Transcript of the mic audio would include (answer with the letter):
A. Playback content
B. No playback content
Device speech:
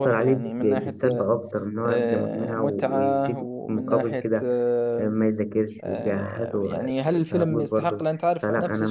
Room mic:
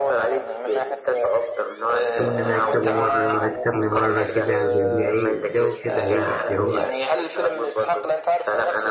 A